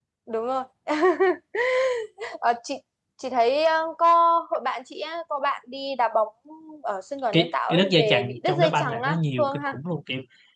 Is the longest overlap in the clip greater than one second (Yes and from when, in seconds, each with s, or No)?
Yes, from 7.3 s